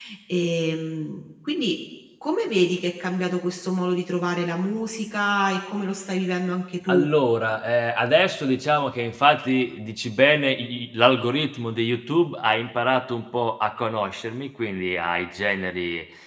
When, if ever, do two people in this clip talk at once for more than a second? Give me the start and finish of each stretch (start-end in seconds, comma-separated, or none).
none